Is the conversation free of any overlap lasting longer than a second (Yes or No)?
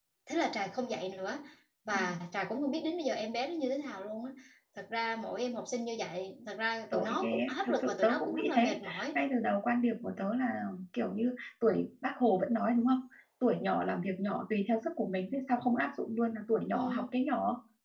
No